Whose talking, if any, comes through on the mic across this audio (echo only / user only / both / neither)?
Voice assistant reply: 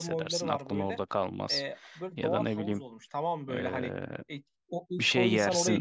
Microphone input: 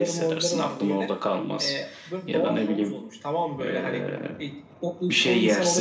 echo only